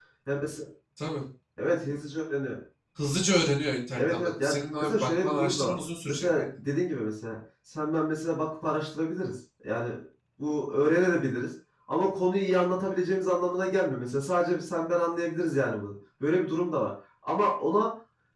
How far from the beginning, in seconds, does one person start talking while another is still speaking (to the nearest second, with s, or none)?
4 s